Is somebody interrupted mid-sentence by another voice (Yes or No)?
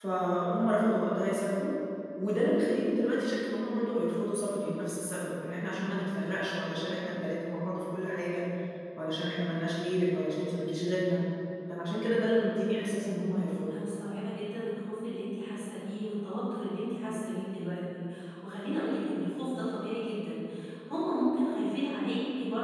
No